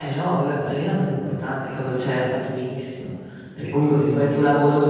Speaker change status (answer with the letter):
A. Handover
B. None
B